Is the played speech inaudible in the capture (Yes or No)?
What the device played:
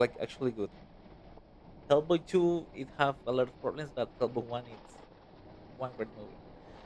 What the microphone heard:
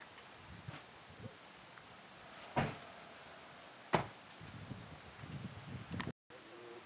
Yes